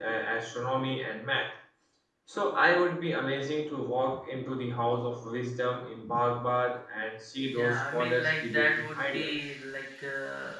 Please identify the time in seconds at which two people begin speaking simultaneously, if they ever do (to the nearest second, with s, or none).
8 s